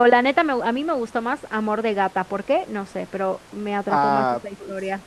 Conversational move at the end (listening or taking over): taking over